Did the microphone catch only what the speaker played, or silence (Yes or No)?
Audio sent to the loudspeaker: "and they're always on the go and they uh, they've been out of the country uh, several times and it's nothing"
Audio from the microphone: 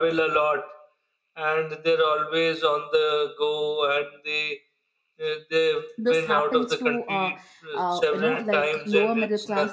No